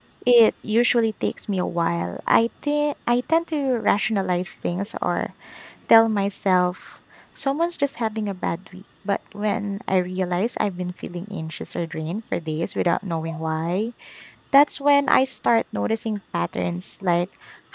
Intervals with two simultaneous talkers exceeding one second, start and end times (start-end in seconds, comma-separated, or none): none